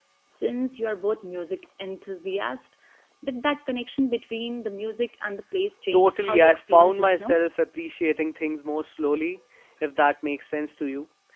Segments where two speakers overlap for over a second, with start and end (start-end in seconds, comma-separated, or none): 5.9-7.4